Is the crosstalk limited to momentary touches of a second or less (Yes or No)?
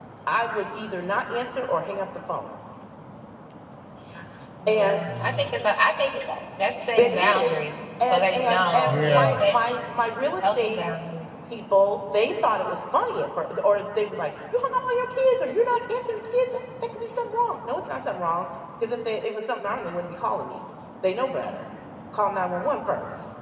No